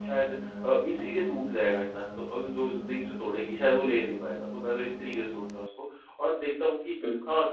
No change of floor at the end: Yes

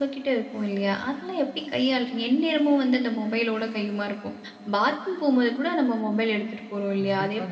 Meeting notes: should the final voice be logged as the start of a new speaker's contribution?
Yes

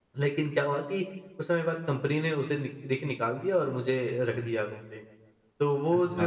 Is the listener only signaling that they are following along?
Yes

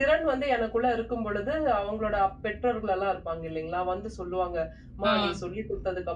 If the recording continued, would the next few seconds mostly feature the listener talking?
No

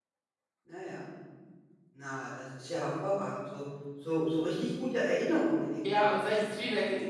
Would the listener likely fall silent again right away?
No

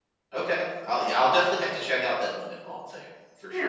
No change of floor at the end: No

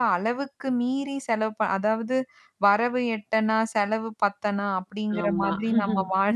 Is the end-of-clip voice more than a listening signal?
No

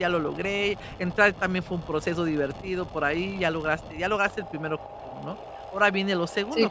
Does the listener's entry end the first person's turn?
Yes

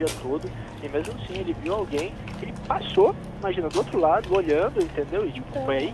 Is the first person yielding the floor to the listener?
No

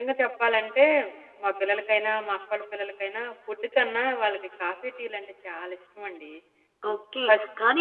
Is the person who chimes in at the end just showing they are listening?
No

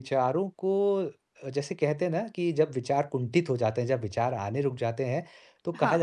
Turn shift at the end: No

